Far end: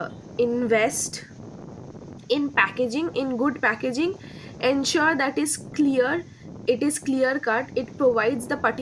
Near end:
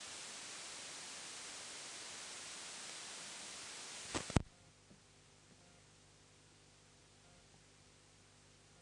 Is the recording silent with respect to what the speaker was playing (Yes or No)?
Yes